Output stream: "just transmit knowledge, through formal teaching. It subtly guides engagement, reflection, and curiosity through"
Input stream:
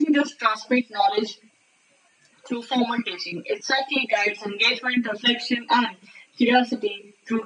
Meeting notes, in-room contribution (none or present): none